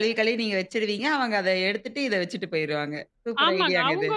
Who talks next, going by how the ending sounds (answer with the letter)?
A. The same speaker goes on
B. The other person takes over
B